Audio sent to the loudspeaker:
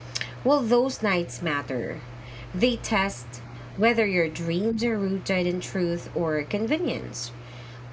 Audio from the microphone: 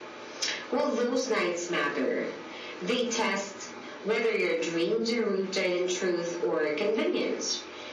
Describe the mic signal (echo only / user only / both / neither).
echo only